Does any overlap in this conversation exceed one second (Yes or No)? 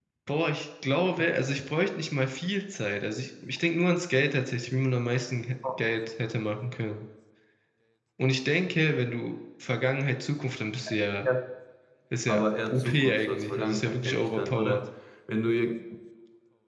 Yes